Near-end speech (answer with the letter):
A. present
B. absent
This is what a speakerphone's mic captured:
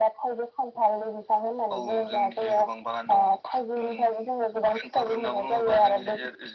B